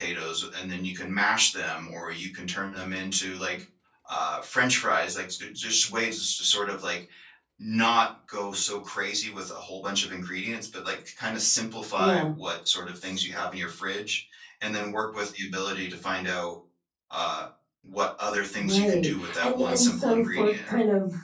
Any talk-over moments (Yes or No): Yes